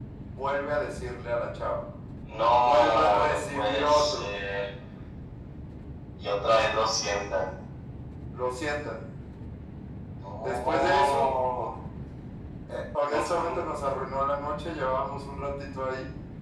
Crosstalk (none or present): present